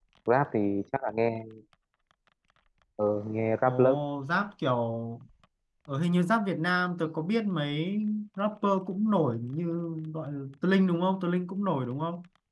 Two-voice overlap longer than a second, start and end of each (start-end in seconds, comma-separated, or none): none